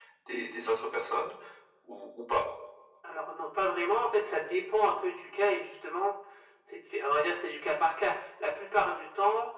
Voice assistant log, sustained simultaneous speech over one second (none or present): none